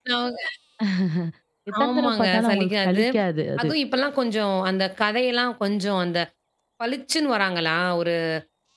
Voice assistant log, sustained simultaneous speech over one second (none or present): present